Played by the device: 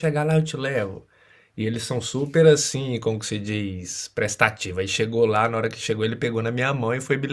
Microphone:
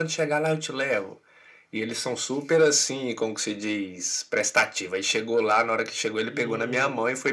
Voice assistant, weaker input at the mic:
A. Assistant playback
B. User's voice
B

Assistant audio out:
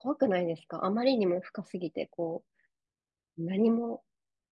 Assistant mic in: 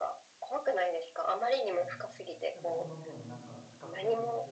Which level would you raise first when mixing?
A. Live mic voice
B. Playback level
A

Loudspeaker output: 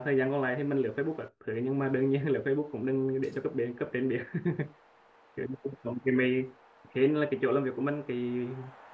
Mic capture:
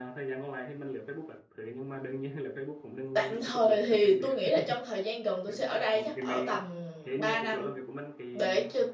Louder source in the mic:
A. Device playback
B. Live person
B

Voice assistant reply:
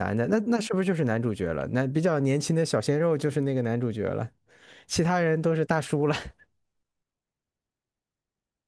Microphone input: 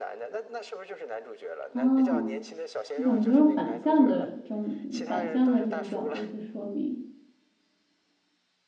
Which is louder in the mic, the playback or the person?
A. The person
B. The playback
A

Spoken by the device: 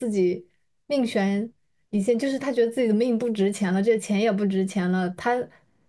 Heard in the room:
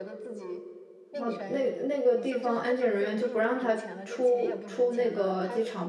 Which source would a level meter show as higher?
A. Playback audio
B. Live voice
B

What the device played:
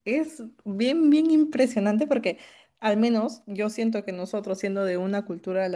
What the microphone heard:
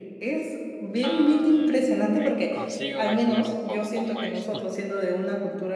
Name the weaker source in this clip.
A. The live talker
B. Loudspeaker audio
A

